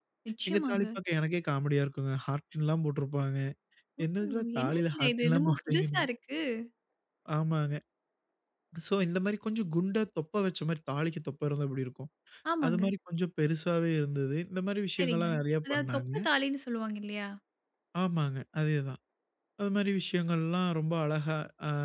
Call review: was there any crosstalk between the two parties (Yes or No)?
Yes